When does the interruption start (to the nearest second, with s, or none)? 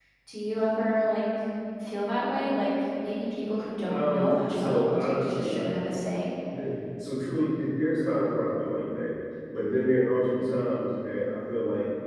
4 s